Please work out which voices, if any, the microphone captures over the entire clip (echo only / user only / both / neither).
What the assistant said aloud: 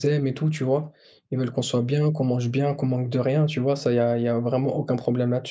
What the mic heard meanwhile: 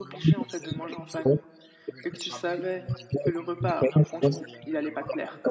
both